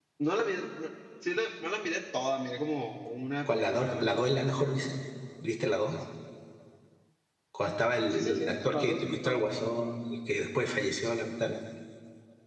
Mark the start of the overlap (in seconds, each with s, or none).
3.5 s